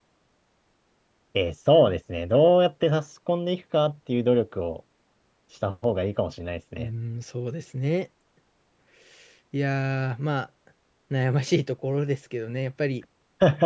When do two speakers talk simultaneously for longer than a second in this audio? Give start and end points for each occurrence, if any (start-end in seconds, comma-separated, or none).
none